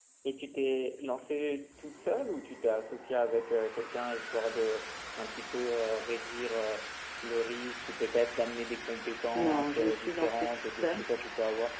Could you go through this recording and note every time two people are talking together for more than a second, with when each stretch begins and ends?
9.3-11.1

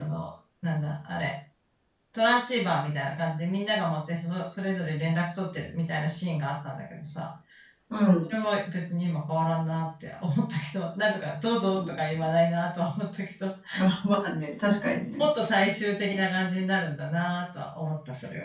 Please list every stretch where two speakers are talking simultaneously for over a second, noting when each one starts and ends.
none

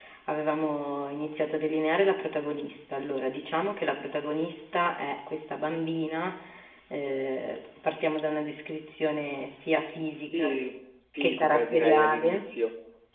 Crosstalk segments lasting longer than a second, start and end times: 11.2-12.4

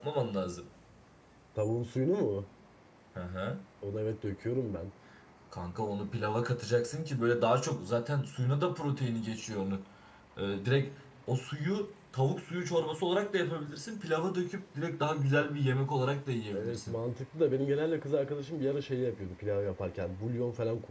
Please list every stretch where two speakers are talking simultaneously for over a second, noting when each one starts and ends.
none

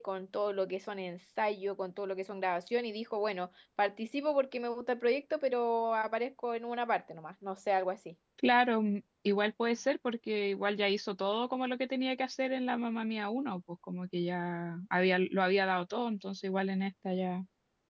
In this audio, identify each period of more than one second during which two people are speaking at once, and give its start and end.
none

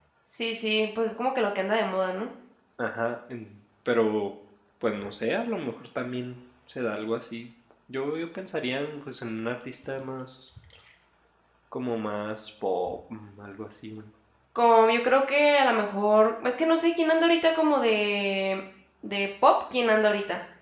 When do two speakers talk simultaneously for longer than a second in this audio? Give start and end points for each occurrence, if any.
none

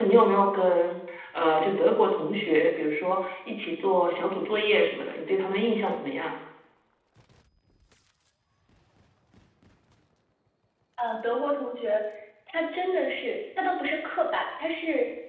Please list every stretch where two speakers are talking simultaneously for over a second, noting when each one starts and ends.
none

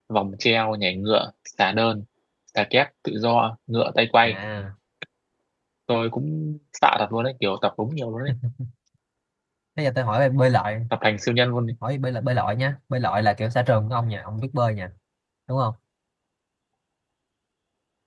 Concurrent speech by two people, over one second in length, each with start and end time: none

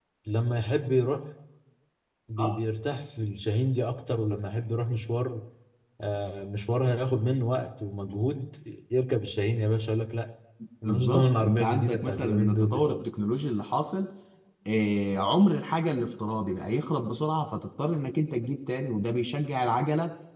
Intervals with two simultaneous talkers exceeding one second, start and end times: 10.8-13.1

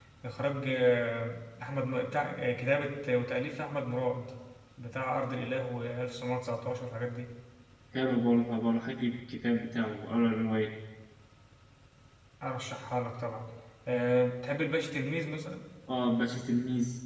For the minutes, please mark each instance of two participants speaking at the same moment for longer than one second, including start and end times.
none

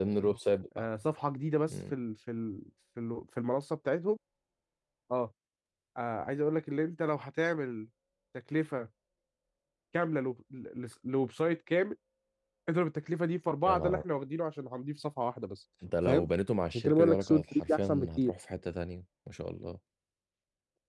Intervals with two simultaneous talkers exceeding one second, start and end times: 16.7-18.3

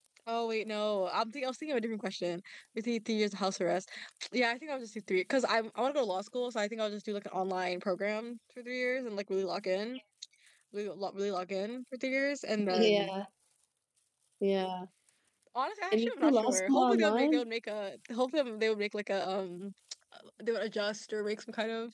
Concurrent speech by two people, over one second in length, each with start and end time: 15.9-17.4

